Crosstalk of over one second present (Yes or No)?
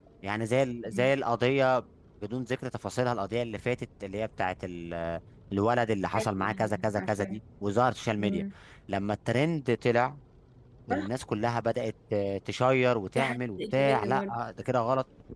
Yes